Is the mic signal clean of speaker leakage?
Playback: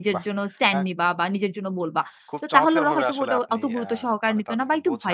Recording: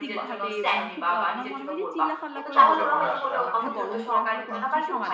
No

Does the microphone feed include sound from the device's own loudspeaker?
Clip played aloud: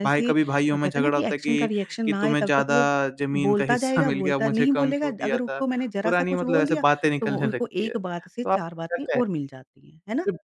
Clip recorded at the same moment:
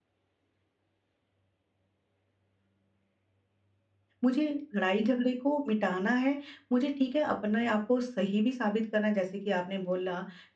No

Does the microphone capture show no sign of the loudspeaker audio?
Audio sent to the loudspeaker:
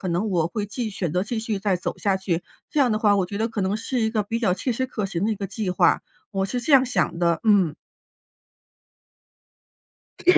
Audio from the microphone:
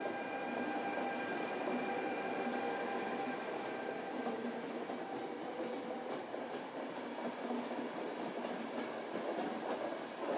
Yes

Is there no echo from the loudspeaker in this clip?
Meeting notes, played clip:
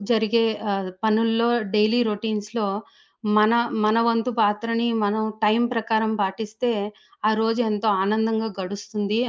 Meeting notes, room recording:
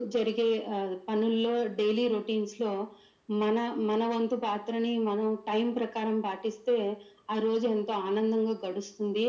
No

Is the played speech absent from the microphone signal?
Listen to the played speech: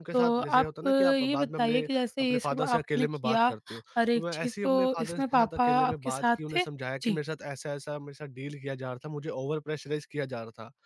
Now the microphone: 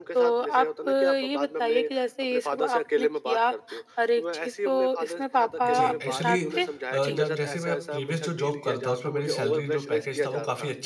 No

